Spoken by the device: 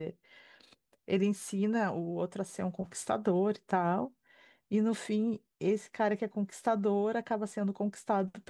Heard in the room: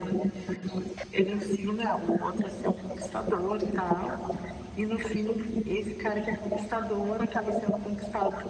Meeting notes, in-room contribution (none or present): none